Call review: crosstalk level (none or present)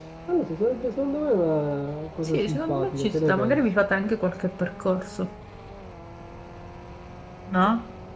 present